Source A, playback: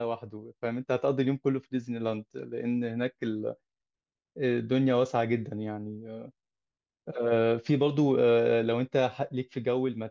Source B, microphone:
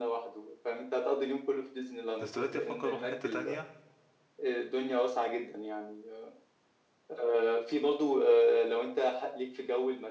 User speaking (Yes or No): Yes